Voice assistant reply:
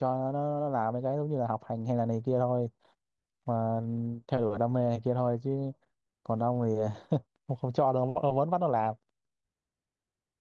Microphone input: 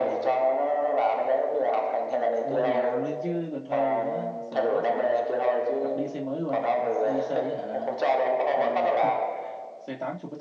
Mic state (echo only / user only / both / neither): both